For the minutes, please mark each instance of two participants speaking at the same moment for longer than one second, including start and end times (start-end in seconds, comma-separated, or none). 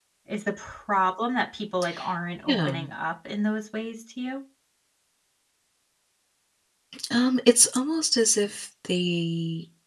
none